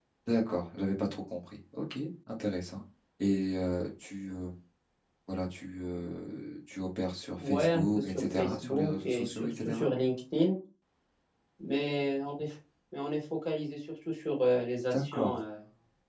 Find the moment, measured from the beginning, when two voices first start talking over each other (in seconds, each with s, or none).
7.4 s